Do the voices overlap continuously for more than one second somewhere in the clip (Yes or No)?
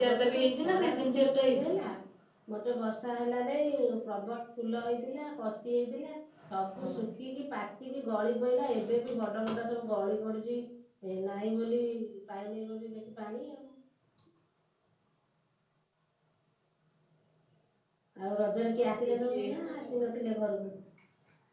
Yes